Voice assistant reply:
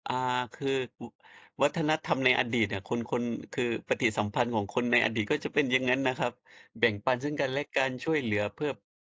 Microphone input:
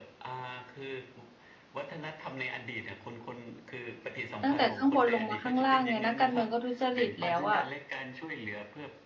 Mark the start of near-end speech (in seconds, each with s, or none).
4.4 s